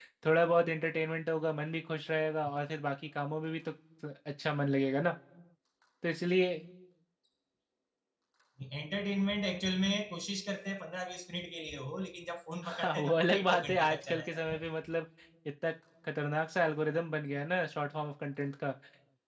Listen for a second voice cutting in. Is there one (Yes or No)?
Yes